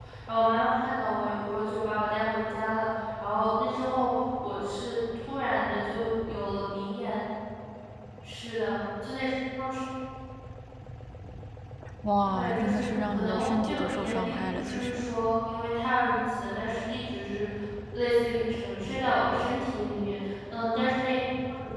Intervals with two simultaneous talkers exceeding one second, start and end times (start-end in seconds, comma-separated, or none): 12.3-15.0